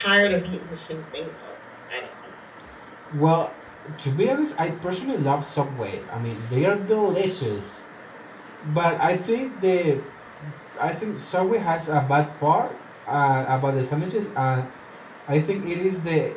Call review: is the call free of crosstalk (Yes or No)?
Yes